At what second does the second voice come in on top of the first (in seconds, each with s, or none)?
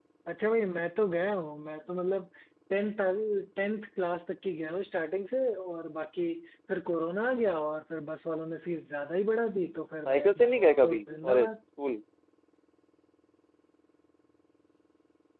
10.1 s